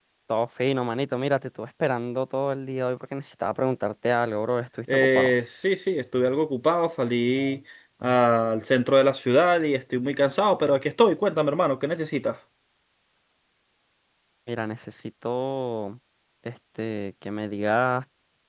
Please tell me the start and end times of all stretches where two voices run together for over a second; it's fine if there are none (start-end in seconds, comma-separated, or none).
none